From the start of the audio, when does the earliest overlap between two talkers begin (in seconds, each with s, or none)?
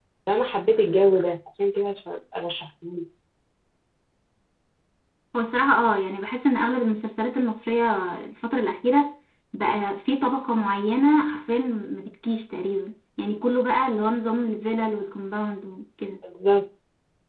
none